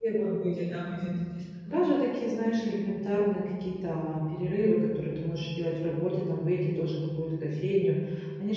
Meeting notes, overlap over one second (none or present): none